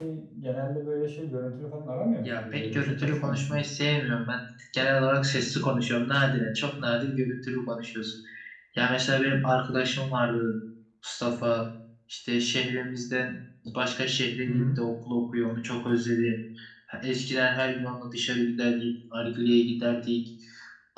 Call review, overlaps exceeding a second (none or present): present